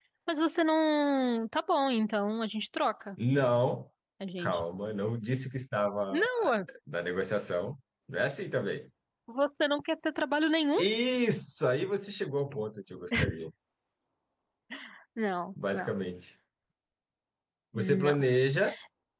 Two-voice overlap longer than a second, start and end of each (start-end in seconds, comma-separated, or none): none